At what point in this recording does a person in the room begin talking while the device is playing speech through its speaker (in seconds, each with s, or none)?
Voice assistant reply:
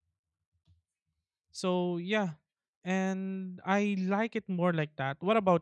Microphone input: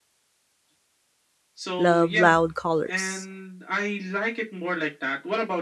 1.8 s